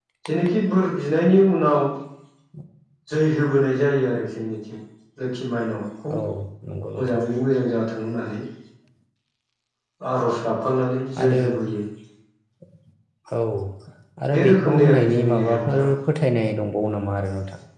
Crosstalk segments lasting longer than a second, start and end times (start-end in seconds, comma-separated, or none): 14.3-15.9